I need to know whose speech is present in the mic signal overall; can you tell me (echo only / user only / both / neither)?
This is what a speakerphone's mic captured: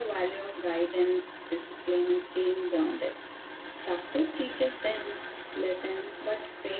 echo only